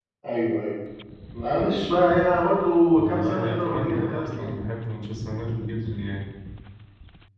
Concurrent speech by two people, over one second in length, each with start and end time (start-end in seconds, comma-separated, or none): 3.0-4.5